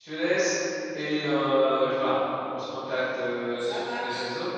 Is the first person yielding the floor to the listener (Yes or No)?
No